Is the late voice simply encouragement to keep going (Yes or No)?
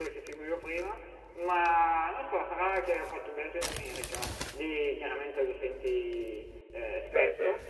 Yes